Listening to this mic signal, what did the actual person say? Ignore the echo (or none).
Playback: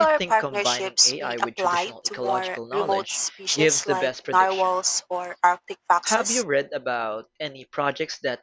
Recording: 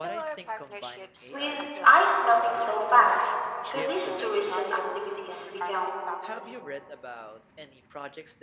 with ice melting so fast, could these tourism activities become